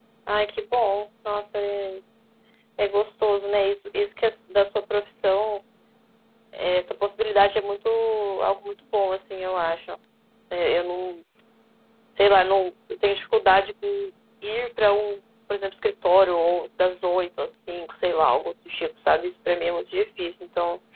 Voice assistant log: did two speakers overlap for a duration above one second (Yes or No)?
No